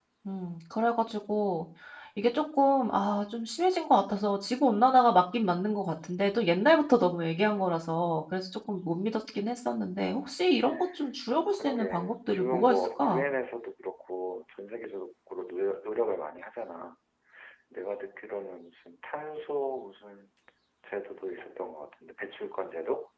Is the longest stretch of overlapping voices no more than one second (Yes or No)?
No